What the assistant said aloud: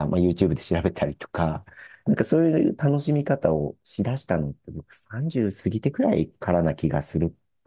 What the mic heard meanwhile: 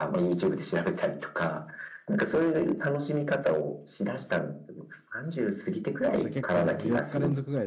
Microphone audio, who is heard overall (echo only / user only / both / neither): both